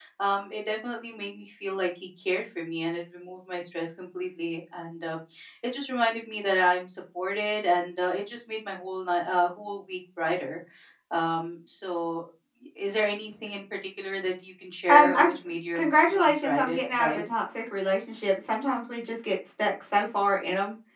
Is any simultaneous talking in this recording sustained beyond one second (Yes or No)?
Yes